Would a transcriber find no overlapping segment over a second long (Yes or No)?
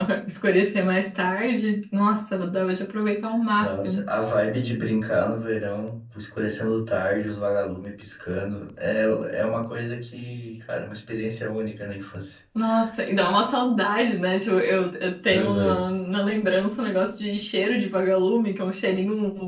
Yes